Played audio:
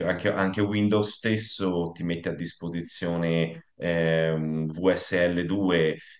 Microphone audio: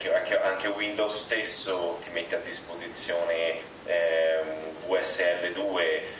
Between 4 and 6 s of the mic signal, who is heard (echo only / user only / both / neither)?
echo only